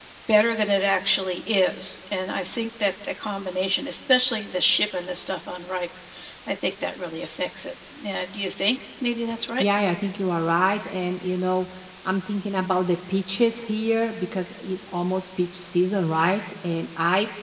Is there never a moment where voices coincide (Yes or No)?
Yes